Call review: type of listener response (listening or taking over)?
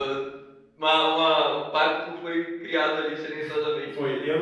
taking over